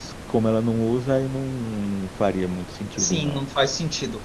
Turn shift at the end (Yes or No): Yes